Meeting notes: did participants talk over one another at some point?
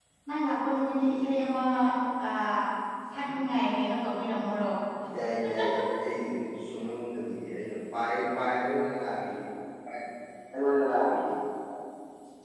No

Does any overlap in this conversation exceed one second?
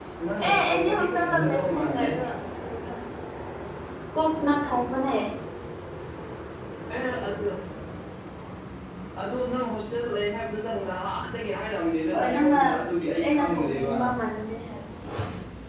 Yes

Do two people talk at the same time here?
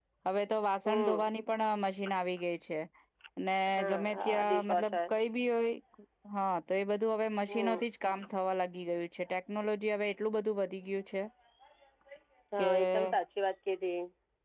Yes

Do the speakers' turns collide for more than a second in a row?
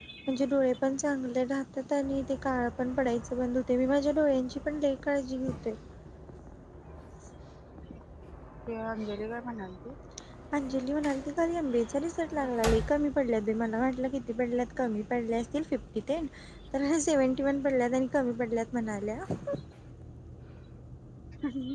No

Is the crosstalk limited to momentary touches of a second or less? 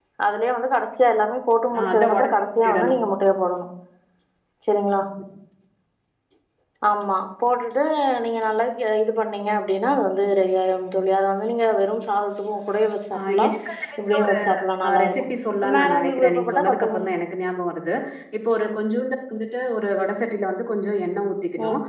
No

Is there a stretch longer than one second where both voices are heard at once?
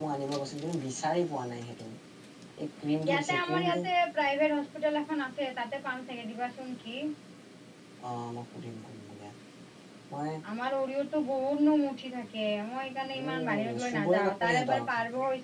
Yes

